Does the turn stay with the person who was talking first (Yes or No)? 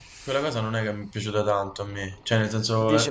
No